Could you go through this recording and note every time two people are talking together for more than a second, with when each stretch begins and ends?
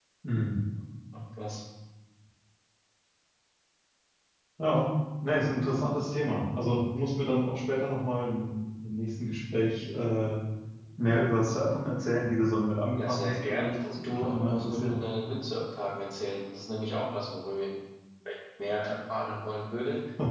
13.0-15.0

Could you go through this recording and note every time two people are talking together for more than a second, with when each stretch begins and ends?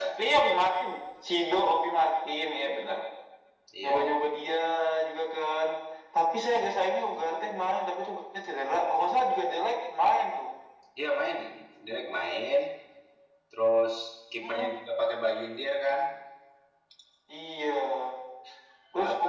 none

